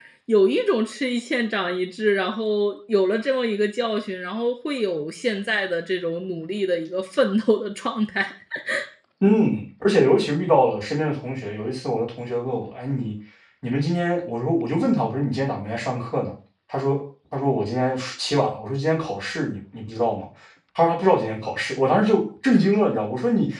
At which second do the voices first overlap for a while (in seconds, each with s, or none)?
none